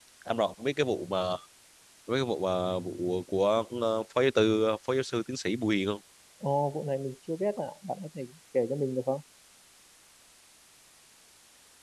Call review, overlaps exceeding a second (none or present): none